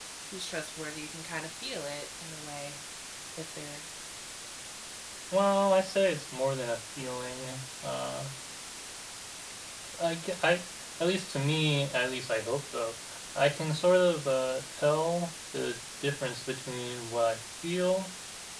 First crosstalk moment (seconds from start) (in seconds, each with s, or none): none